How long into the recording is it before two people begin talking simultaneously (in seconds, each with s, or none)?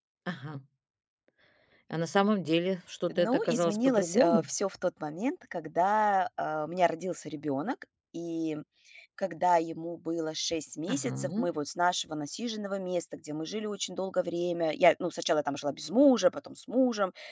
3.1 s